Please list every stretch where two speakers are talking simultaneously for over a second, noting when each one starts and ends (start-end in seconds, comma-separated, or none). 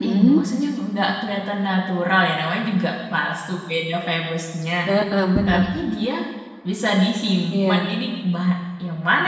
none